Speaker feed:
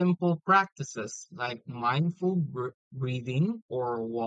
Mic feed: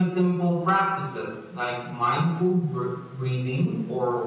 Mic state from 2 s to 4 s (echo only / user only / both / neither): echo only